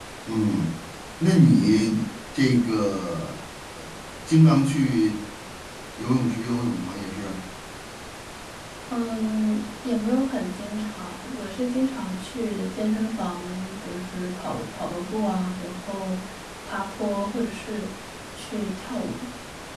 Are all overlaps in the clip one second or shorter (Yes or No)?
Yes